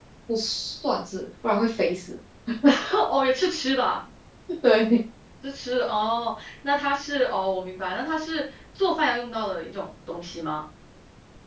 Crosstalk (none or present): none